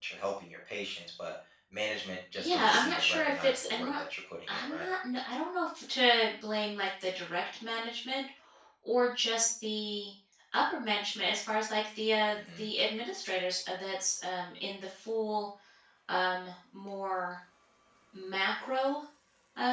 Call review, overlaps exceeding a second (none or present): present